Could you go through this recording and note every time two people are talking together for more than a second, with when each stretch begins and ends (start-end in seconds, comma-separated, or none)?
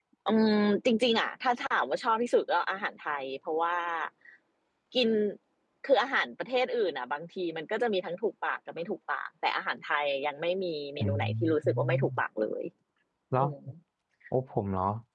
11.0-12.2